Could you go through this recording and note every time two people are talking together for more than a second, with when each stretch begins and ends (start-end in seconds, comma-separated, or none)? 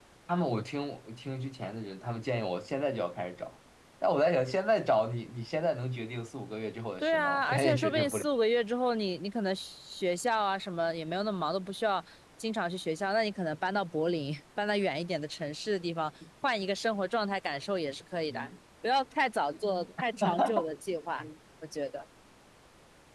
7.0-8.2